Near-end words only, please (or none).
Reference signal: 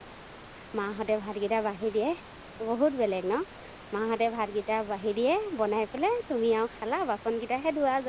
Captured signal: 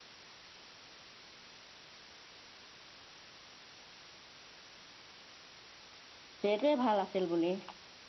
যে এইটোৱে ভাল আছিল বুলি